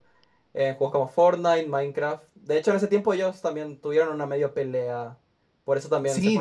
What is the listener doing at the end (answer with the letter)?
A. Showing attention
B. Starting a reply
B